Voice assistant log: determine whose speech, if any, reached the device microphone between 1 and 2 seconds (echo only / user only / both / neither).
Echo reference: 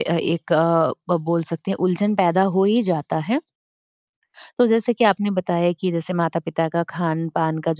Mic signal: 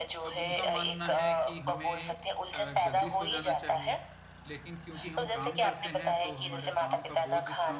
both